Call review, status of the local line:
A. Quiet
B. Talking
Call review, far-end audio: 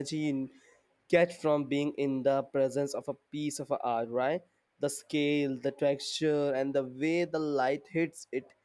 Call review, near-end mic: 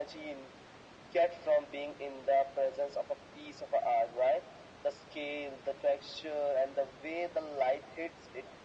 A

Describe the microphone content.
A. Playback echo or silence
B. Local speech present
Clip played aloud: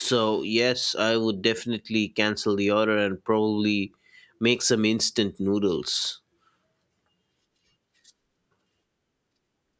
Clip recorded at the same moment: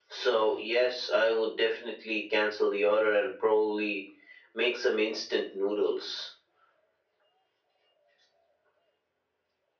A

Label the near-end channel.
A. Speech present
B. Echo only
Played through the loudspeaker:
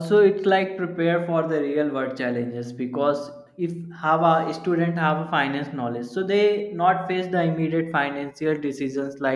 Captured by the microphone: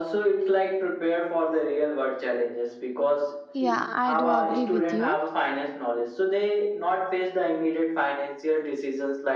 A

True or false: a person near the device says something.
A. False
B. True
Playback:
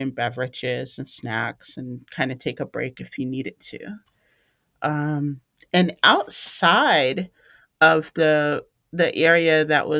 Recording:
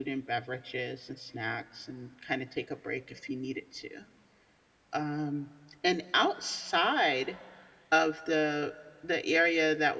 A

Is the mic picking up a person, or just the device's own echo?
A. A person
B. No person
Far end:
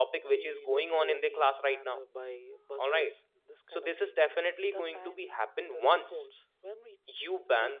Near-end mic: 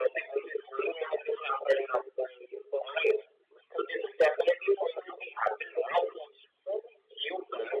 B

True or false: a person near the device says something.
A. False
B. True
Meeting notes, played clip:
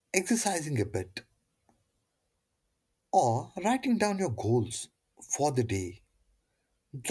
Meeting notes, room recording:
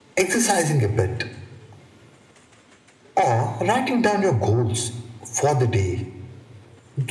A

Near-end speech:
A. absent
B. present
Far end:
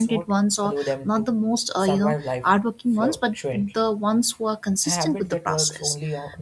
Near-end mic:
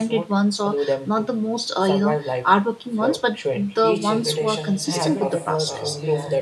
B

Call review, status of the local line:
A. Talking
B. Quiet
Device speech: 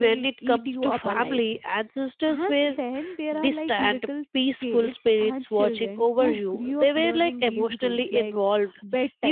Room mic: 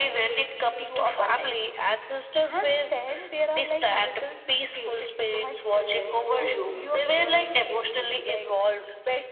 B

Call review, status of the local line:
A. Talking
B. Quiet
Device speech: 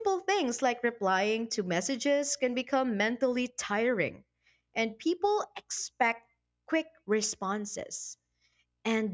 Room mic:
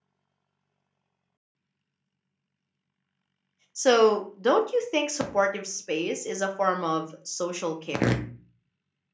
A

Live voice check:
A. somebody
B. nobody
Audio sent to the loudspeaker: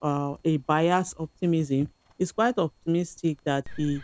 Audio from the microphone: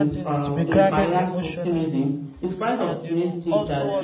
A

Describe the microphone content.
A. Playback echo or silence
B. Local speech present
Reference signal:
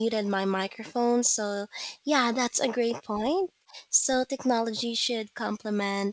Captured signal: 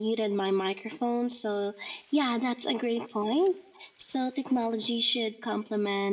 A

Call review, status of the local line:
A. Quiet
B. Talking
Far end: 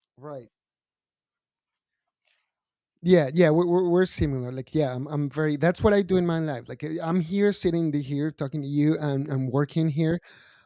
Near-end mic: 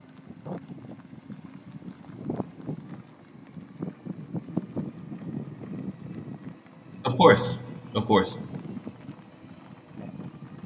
B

